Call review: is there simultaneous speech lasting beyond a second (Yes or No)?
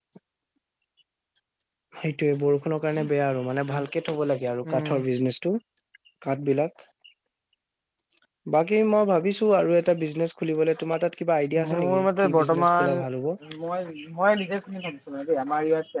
Yes